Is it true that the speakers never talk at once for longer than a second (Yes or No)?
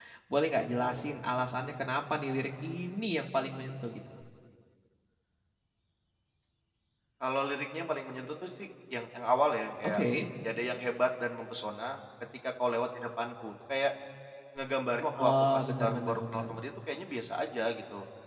No